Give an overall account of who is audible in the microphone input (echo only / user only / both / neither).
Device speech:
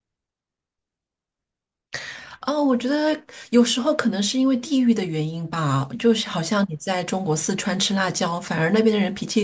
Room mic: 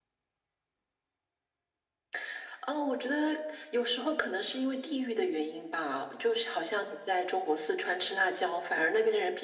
echo only